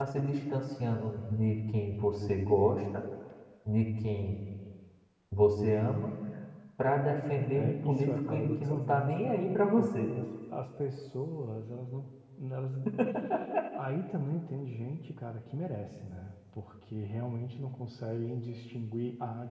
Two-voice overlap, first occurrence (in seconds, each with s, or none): 7.5 s